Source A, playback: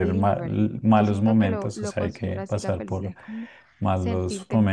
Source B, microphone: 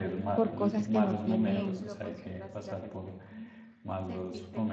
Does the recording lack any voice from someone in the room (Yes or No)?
No